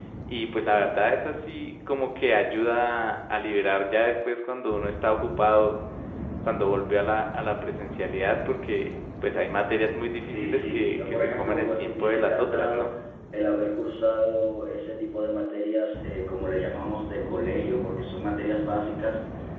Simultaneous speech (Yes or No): Yes